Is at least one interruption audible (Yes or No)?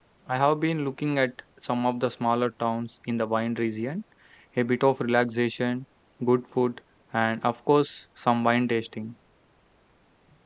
No